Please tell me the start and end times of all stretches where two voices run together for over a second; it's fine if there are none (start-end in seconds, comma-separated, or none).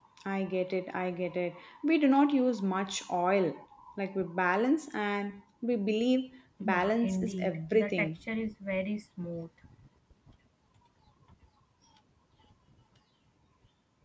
6.6-8.1